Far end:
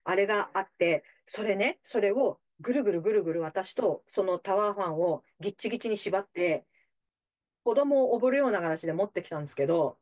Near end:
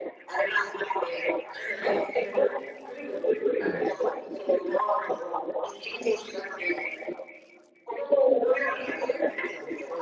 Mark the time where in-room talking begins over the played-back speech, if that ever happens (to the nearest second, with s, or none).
4 s